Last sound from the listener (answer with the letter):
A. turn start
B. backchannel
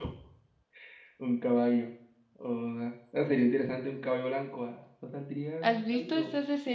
A